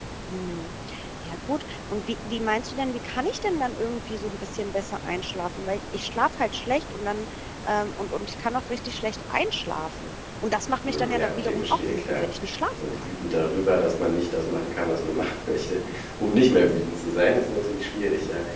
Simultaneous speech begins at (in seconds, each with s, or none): 10.8 s